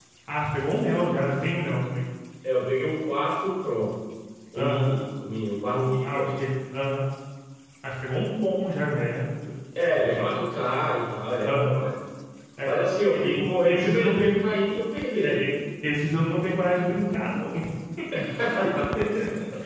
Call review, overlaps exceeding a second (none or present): present